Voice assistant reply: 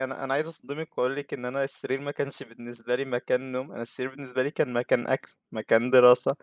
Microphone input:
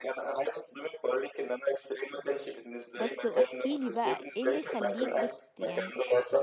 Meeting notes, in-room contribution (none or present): present